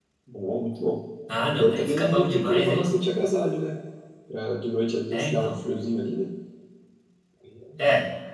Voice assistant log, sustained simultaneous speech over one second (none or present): present